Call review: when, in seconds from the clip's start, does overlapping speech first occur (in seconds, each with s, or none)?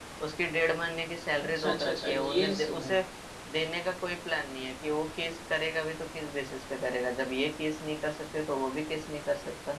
1.6 s